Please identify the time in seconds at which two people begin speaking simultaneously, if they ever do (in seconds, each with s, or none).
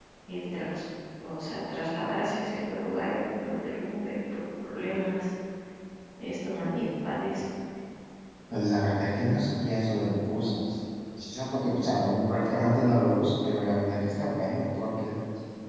none